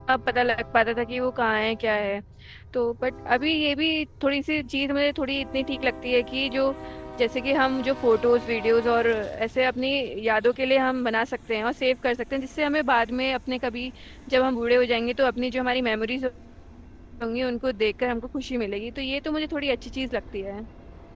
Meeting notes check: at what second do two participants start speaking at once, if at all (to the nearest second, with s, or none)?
none